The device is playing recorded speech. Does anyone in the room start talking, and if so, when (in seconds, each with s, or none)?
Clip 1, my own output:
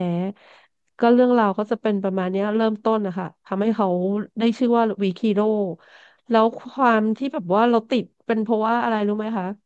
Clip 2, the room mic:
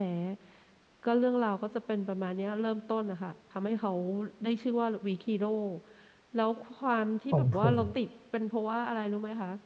7.3 s